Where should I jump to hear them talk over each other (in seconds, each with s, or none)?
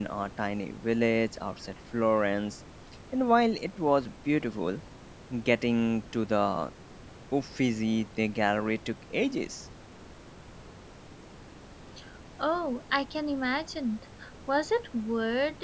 none